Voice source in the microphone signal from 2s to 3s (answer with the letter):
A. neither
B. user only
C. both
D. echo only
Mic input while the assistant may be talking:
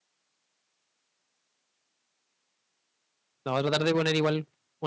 A